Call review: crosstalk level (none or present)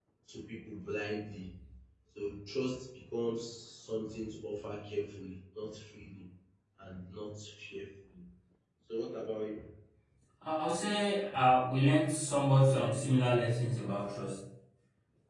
none